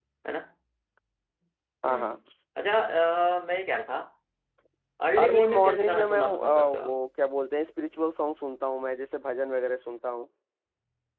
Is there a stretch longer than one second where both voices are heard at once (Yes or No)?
Yes